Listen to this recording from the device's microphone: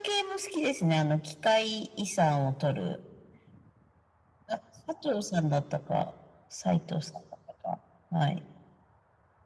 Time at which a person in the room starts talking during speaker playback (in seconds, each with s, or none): none